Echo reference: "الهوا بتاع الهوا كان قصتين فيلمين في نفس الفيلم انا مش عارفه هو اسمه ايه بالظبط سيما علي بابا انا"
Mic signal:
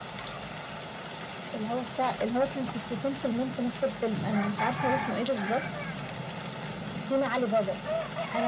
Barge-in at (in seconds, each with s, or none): none